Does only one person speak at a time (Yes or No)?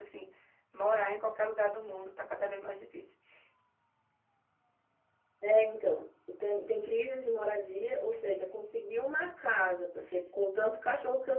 Yes